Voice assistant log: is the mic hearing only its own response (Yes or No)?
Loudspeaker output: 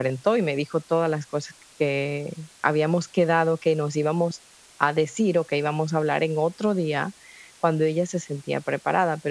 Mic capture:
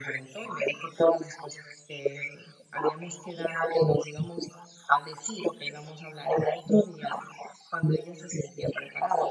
Yes